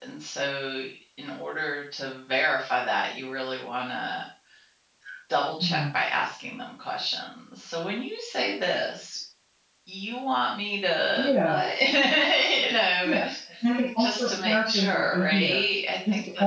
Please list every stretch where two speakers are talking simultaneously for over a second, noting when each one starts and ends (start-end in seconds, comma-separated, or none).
14.0-15.6